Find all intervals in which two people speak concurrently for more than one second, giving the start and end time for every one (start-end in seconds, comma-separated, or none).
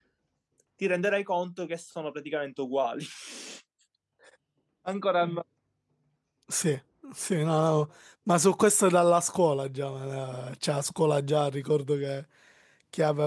none